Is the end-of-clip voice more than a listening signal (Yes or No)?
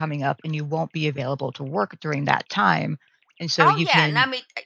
Yes